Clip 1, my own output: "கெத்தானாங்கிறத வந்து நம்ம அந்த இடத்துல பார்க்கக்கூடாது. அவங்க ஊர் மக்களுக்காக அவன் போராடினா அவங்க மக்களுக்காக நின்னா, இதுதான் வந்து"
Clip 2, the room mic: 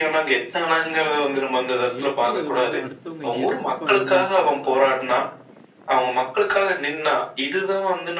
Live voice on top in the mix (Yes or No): No